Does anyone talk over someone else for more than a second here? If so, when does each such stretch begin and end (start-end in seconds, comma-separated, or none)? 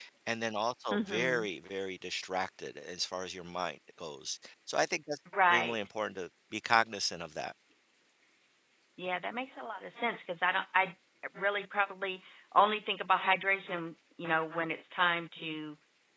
none